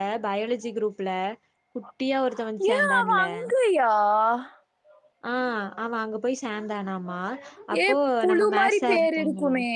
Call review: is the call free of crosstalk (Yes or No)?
No